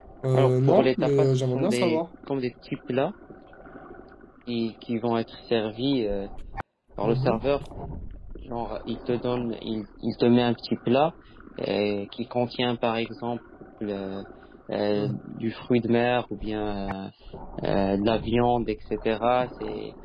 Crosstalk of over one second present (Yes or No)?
Yes